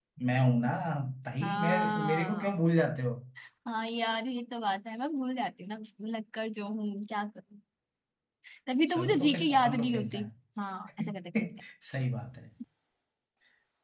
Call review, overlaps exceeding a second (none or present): present